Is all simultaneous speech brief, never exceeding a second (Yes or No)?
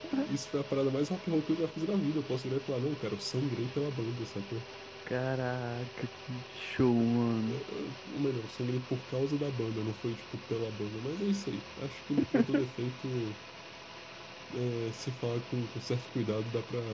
Yes